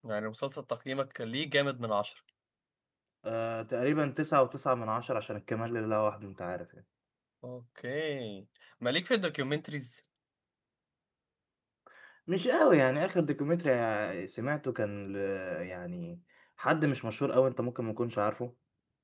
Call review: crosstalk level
none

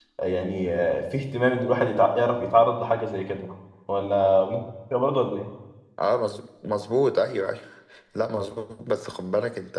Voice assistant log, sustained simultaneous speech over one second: none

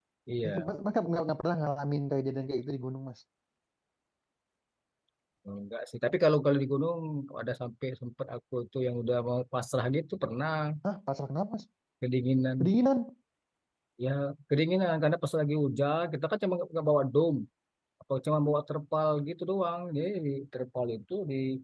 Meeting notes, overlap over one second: none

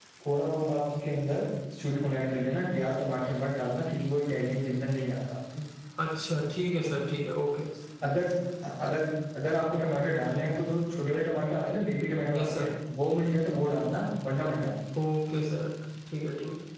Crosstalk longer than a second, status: none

